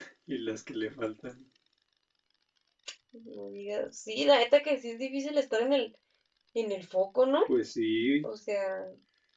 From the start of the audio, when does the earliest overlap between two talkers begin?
none

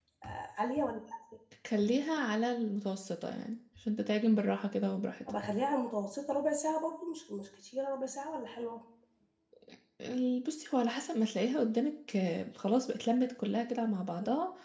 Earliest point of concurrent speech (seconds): none

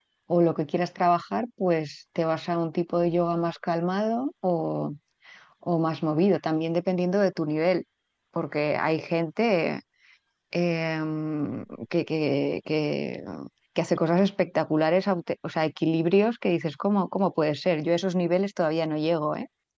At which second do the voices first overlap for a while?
none

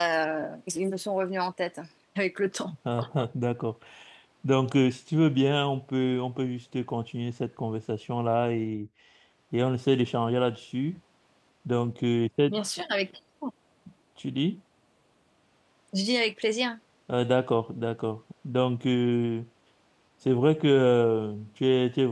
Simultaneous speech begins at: none

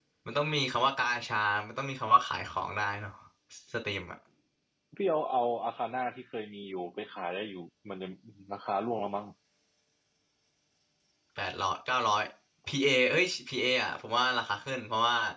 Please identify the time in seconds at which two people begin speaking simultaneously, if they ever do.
none

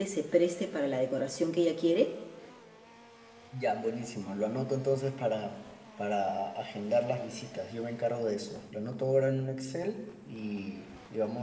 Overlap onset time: none

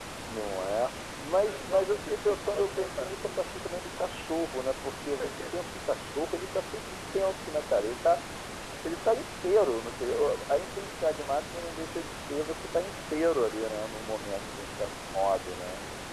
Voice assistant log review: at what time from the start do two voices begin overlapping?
1 s

